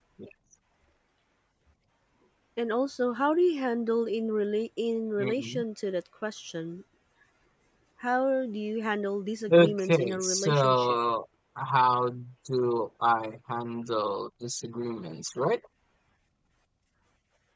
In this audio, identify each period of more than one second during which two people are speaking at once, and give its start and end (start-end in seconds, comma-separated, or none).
9.5-11.0